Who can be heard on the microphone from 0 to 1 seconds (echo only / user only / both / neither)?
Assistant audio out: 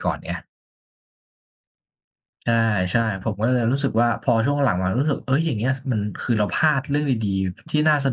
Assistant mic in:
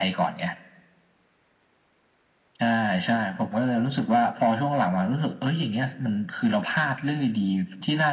echo only